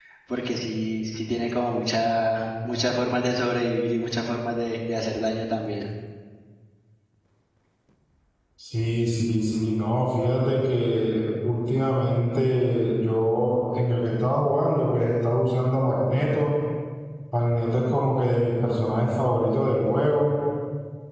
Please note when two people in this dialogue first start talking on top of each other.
none

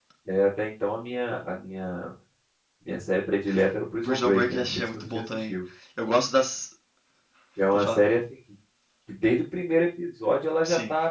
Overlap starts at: 4.0 s

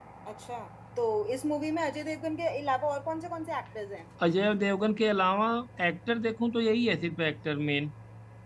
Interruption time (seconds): none

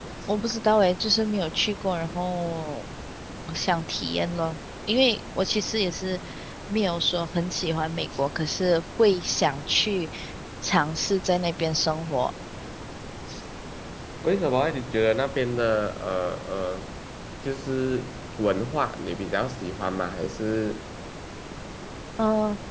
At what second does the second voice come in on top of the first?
none

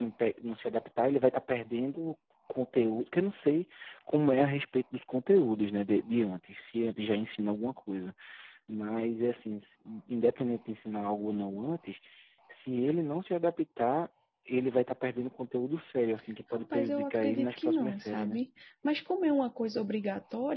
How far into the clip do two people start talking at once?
16.5 s

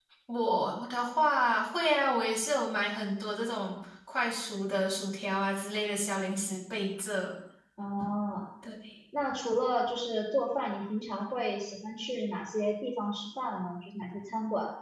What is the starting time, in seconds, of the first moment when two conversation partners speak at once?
none

